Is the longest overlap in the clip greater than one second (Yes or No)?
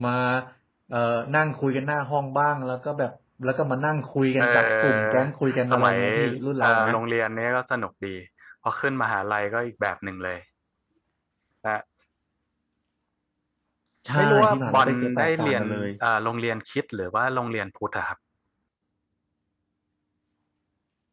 Yes